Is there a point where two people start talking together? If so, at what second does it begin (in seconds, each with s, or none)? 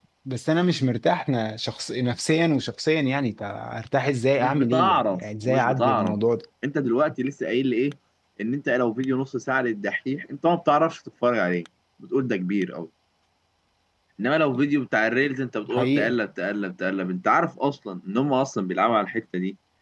4.4 s